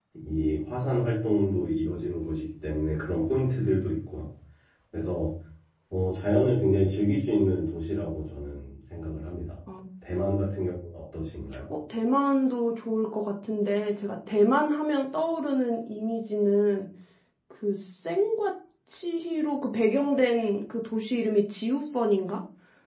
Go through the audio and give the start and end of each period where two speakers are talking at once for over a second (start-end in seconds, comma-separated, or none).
none